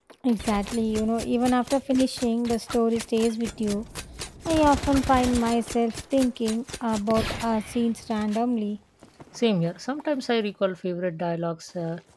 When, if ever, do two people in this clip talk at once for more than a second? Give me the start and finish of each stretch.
none

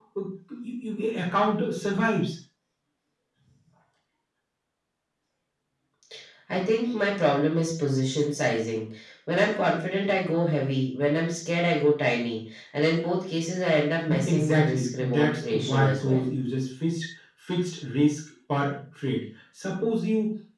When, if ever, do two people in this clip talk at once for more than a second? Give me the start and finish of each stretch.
14.1-16.2

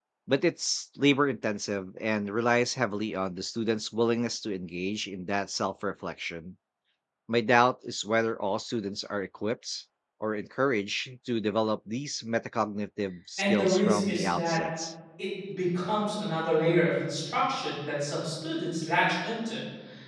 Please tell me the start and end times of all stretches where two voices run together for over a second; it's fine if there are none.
13.4-14.6

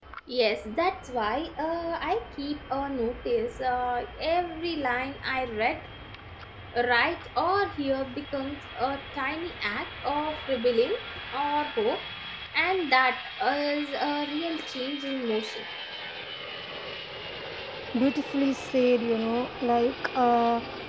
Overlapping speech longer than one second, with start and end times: none

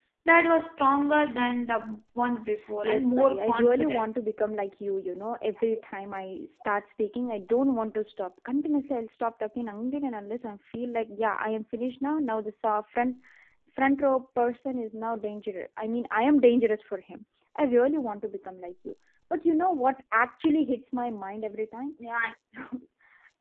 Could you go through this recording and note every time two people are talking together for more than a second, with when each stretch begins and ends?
2.8-4.1

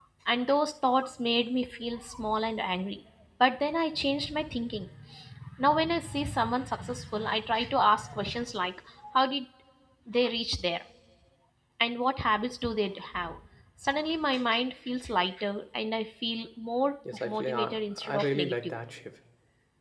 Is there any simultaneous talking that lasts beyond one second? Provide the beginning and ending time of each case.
17.1-18.8

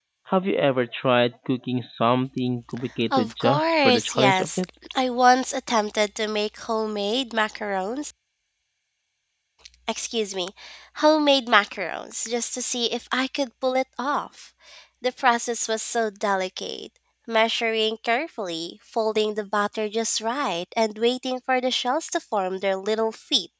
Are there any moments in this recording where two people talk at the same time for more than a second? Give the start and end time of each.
3.2-4.7

